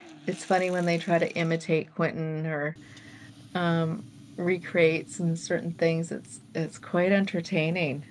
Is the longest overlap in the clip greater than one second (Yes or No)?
No